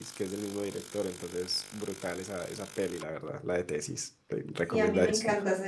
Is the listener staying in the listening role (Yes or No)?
No